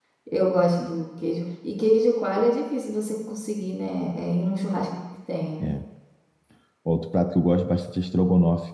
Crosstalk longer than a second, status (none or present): none